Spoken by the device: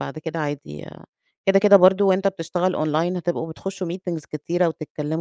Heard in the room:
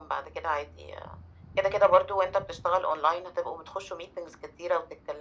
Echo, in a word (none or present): present